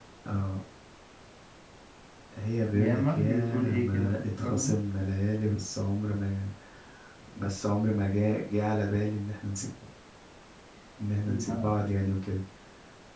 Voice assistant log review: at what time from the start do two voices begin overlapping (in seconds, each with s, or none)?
2.7 s